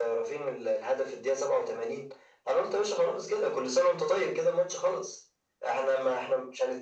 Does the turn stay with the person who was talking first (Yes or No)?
Yes